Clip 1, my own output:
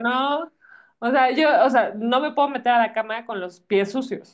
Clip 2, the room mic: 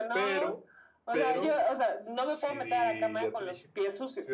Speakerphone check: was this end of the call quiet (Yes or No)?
No